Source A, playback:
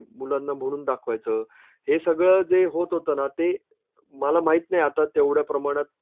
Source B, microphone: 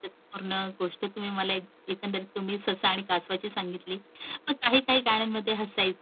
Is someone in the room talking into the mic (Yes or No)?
Yes